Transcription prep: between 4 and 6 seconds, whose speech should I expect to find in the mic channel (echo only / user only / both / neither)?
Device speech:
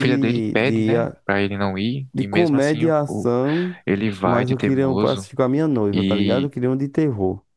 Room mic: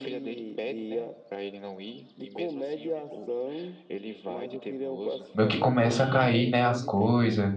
both